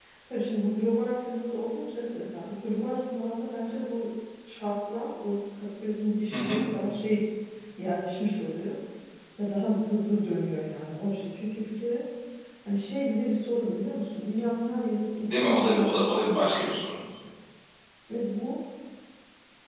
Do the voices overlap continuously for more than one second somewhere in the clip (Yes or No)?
Yes